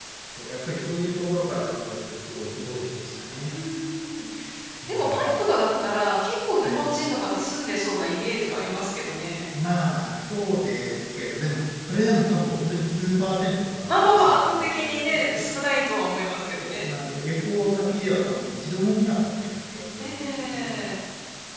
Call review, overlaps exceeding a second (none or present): present